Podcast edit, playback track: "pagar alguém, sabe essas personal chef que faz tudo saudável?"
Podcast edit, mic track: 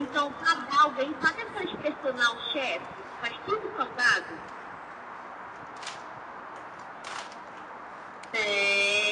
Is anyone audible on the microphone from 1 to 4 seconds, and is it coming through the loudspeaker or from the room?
echo only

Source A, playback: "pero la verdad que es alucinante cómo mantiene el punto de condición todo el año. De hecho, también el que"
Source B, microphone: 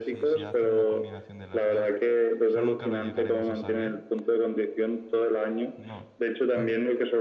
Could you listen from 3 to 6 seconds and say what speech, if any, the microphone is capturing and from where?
both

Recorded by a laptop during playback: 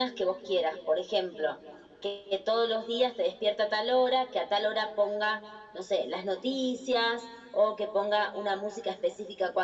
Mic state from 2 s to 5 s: echo only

